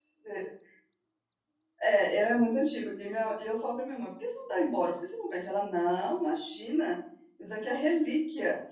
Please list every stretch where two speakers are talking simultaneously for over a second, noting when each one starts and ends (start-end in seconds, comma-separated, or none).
none